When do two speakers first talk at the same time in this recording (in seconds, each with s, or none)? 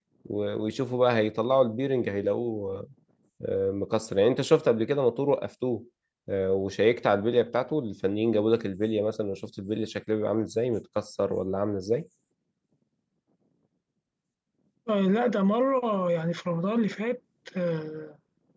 none